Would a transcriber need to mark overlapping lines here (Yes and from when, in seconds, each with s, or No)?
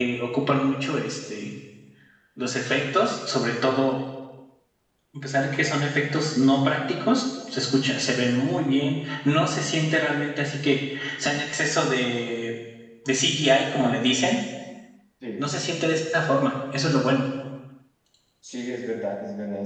No